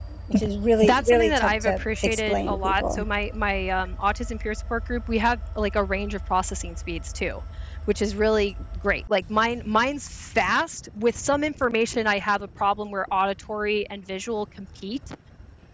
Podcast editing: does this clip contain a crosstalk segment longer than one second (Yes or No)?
Yes